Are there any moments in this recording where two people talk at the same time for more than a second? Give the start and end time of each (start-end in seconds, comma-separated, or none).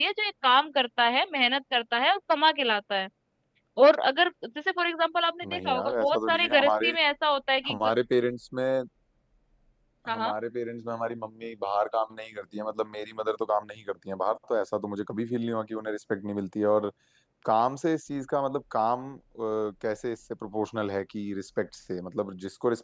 5.5-6.9